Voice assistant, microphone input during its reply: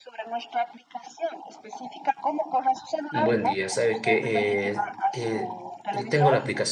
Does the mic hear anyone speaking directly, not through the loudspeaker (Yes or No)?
Yes